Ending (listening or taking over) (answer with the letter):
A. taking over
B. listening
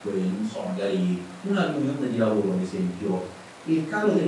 B